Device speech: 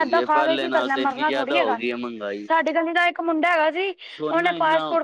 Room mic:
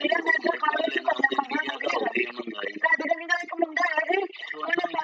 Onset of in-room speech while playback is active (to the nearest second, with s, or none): none